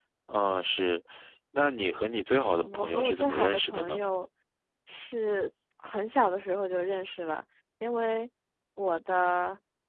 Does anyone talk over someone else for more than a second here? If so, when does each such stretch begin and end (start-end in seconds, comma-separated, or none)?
2.5-4.0